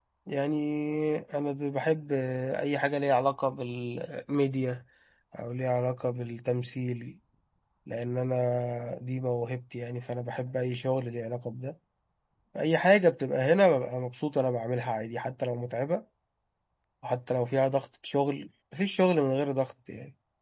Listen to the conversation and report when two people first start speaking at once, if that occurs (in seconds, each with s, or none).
none